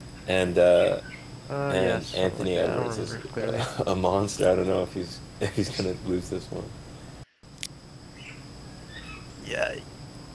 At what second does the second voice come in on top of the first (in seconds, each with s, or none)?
1.7 s